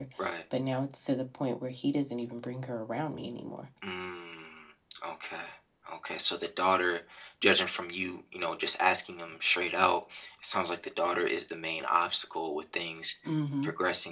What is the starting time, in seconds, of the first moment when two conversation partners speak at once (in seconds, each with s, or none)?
none